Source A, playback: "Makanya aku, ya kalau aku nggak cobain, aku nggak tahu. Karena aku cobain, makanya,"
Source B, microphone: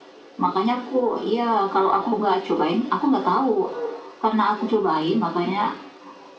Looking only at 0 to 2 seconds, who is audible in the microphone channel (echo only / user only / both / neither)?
echo only